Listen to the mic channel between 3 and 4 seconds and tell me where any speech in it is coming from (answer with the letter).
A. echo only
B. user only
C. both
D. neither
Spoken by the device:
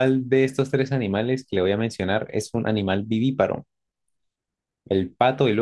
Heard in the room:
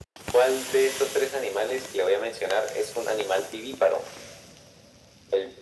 A